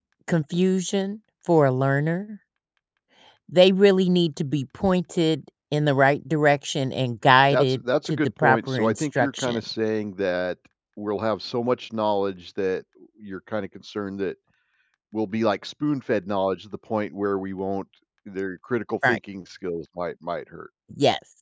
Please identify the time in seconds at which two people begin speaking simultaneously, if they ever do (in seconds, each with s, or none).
7.5 s